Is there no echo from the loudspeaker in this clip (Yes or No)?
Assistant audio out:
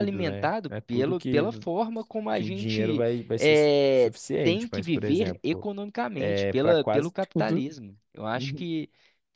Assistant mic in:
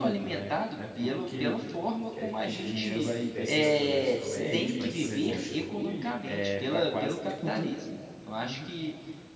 No